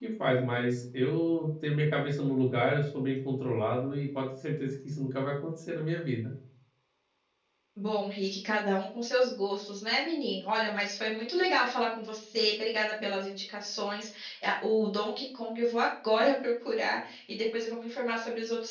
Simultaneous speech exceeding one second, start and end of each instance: none

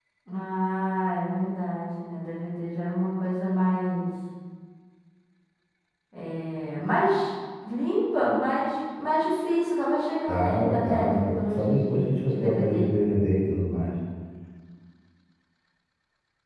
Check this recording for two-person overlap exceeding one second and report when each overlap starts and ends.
10.3-12.9

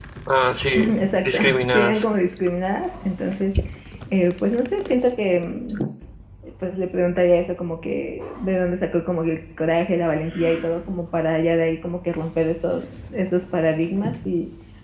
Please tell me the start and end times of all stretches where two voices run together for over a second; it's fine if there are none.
0.8-2.0

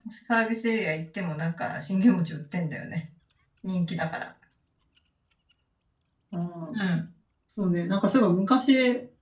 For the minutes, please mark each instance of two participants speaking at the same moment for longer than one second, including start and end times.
none

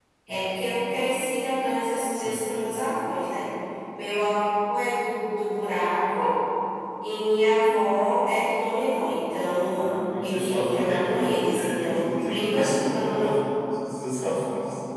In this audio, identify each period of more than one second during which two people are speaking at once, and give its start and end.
9.7-13.3

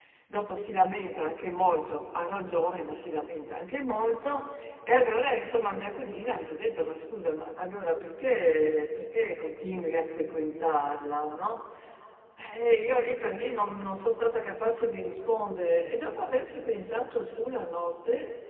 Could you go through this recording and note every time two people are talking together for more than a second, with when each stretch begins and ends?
none

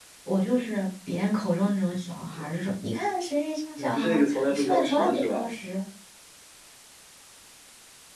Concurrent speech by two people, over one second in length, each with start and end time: 3.8-5.4

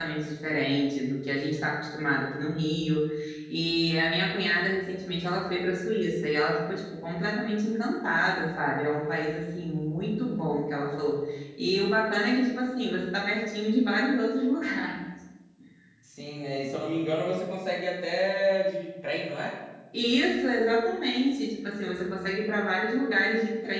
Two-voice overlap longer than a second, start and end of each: none

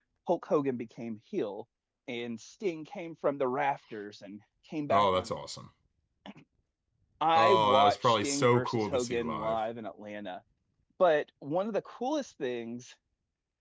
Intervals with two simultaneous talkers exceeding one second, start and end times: 7.4-9.6

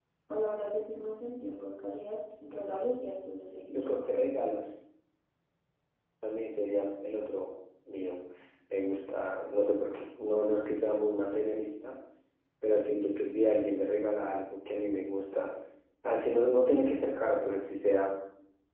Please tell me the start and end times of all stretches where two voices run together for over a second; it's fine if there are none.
none

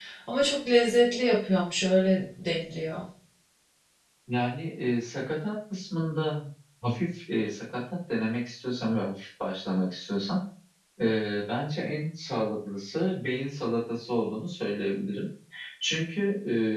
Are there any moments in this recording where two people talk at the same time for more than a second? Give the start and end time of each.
none

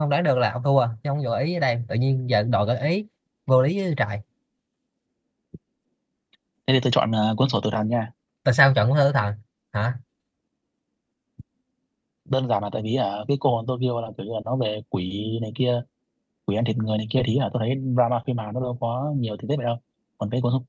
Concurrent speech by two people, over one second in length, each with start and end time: none

